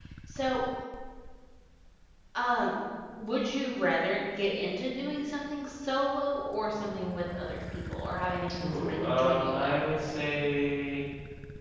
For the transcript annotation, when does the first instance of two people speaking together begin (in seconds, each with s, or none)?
8.6 s